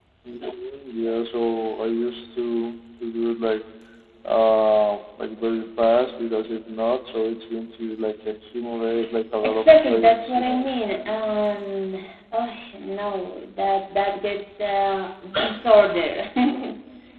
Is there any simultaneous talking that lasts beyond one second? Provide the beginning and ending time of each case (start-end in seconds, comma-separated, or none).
9.4-10.7